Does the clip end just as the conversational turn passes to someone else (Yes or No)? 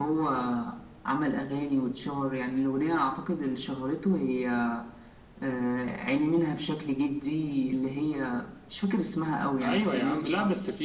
Yes